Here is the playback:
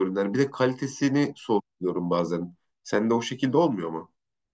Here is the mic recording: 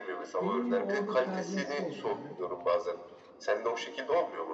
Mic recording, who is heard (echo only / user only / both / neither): both